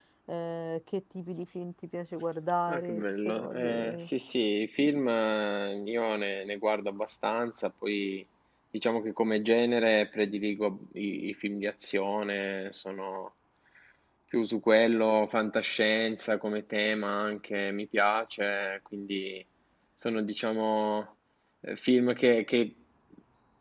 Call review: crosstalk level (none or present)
present